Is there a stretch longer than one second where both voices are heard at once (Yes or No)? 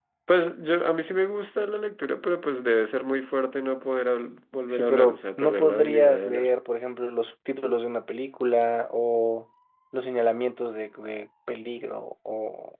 Yes